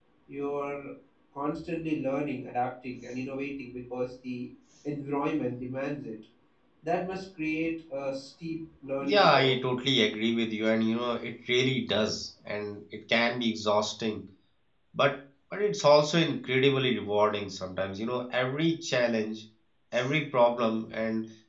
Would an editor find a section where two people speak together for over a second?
No

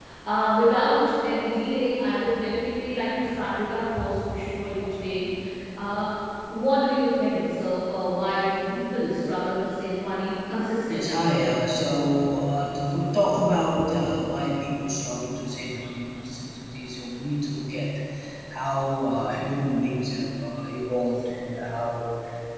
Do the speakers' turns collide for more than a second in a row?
No

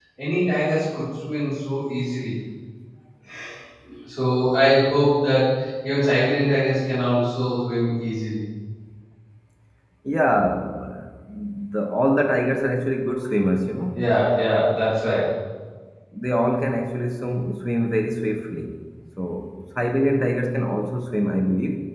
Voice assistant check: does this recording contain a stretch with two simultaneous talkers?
No

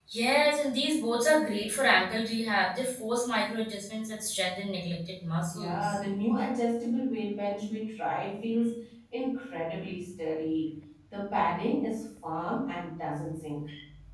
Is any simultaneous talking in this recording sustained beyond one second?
No

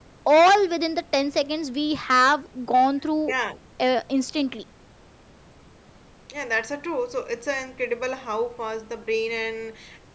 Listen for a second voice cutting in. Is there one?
No

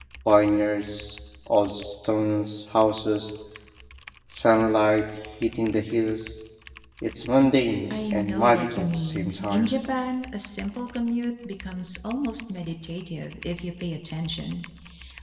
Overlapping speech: Yes, from 7.9 s

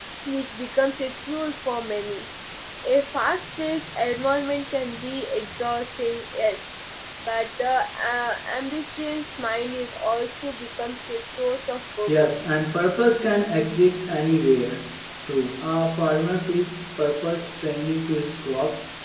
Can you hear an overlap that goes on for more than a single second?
No

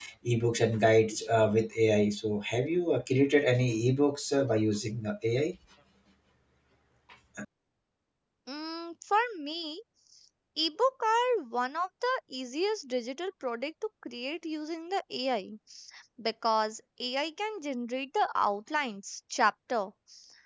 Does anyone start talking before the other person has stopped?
No

